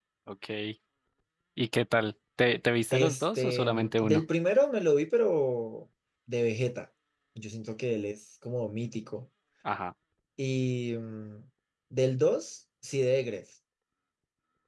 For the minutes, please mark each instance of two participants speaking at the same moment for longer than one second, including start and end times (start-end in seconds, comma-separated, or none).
2.9-4.2